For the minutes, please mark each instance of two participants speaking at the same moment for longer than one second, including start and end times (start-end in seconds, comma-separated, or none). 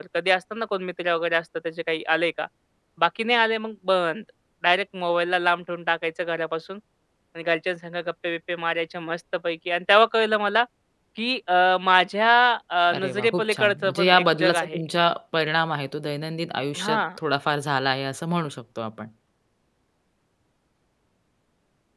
13.0-14.8